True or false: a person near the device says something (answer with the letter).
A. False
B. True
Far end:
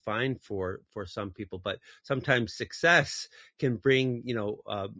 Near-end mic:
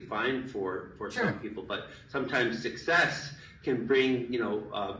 B